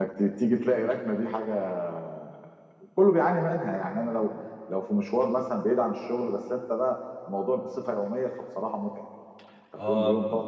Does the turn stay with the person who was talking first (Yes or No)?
No